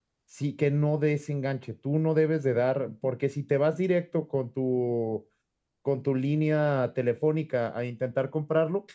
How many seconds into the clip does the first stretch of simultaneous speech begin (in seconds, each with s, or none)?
none